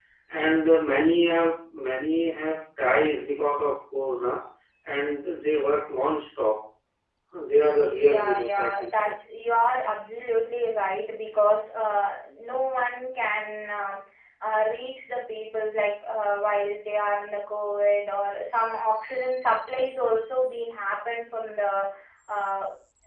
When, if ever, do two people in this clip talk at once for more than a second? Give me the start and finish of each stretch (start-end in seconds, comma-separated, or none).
7.6-9.1